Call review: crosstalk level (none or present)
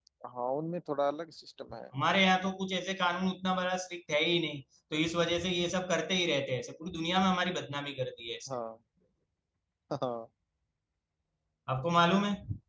none